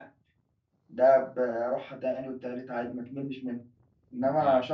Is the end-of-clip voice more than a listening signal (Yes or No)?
No